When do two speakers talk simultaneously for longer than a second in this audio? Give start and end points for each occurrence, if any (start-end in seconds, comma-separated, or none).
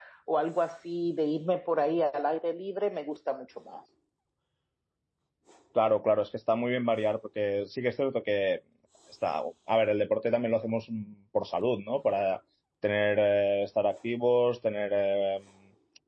none